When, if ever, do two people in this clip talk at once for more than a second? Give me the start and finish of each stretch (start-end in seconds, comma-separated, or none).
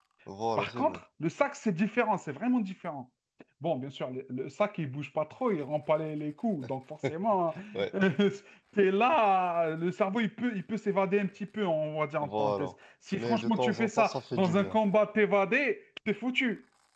13.1-14.8